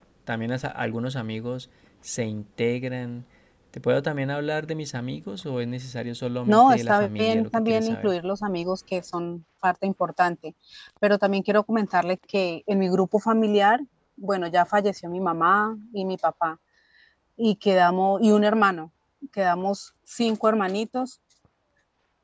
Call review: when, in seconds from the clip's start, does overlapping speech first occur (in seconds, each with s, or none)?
6.5 s